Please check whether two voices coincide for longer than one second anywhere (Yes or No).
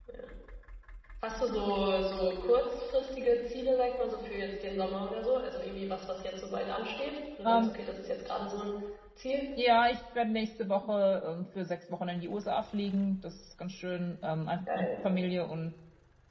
No